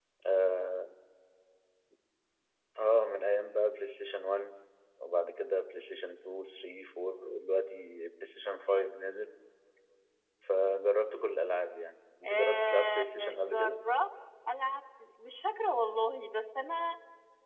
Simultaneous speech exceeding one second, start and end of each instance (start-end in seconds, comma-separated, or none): 12.3-13.8